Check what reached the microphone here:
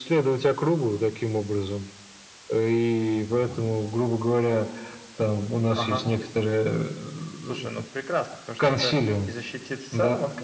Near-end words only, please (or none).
none